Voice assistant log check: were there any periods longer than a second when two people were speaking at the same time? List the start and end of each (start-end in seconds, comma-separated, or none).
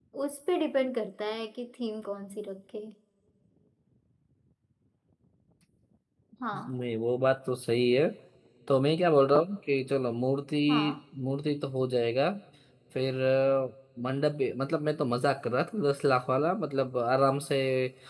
none